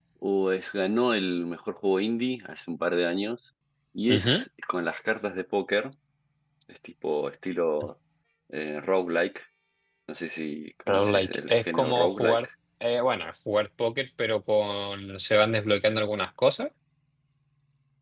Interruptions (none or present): present